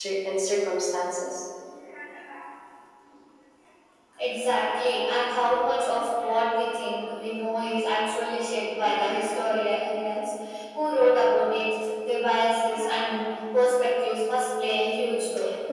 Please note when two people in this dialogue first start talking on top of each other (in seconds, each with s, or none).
none